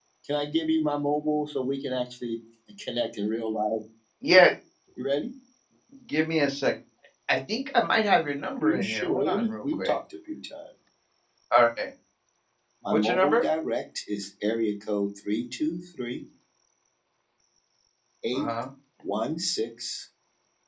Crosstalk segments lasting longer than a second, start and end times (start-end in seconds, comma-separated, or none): 8.6-9.9